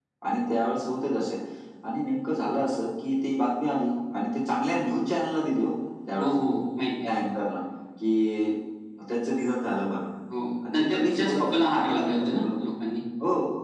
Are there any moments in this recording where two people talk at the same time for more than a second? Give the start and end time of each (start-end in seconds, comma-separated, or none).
10.7-12.4